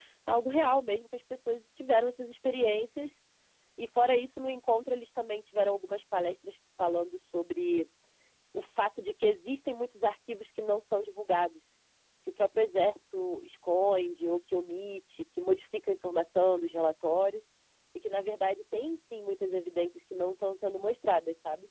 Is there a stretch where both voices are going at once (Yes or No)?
No